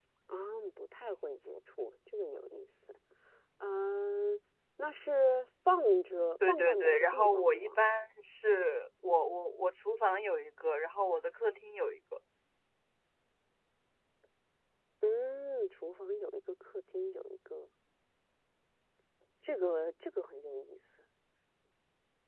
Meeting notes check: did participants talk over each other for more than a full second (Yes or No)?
Yes